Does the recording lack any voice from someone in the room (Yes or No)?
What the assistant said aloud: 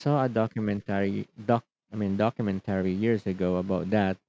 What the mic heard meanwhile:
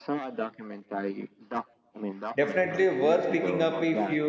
No